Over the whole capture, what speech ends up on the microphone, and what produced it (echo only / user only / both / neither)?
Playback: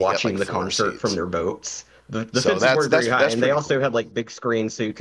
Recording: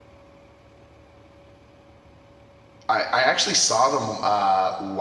user only